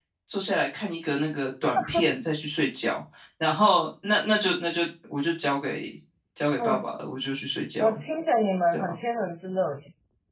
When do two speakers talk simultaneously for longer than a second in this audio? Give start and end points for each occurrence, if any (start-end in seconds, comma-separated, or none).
none